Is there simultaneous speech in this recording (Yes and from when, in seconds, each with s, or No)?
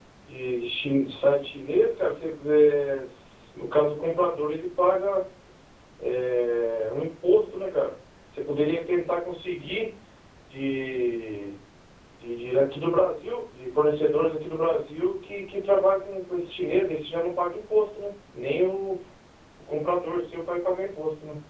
No